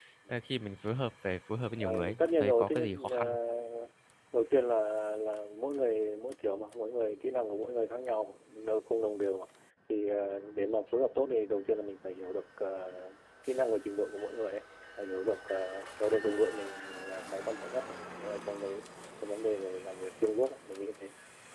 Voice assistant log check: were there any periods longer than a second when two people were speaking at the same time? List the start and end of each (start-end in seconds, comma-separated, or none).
1.8-3.4